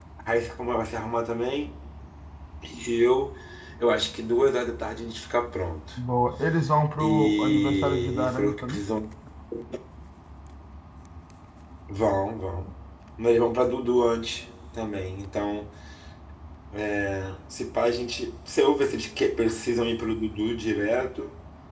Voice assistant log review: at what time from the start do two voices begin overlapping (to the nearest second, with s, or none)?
7 s